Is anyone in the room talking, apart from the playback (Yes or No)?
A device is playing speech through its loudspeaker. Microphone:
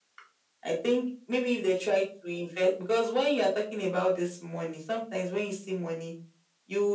No